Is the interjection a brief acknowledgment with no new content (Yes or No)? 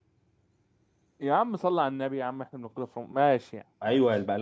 No